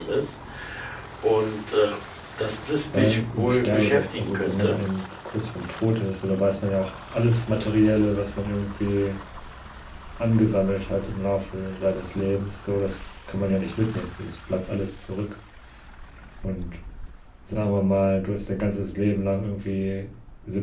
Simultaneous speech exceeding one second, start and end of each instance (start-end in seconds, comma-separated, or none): 2.9-4.8